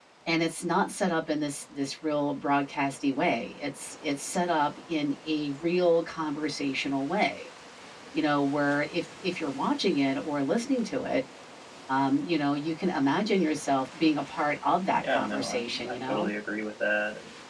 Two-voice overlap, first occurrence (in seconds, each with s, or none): 14.9 s